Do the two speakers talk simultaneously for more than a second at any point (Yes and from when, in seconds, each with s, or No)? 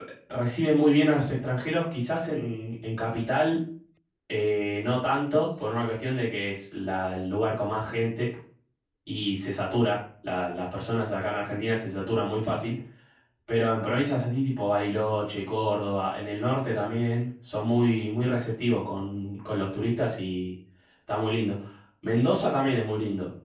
No